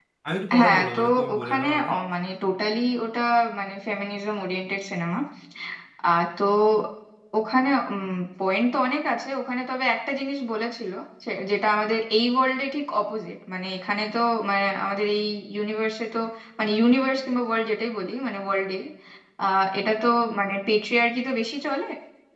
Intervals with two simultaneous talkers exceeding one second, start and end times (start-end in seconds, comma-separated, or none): 0.6-1.9